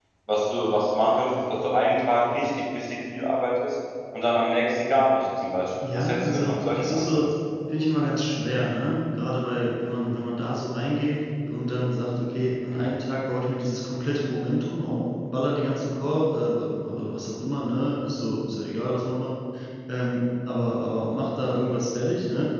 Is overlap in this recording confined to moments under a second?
No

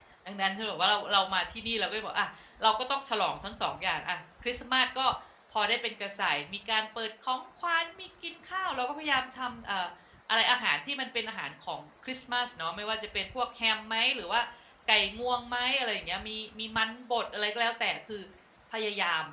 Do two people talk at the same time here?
No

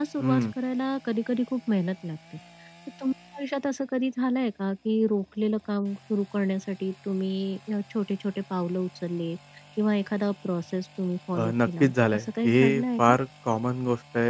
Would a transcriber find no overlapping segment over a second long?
No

